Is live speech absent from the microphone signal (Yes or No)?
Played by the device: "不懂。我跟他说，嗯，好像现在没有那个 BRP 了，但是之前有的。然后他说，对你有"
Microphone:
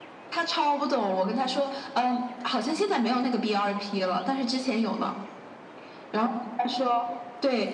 Yes